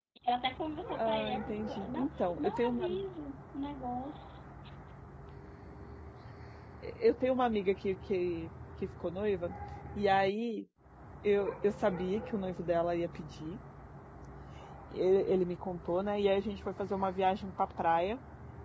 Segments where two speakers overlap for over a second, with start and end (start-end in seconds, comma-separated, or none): 1.0-2.9